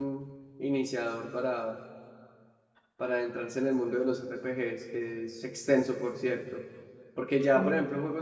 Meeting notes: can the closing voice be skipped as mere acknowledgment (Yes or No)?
Yes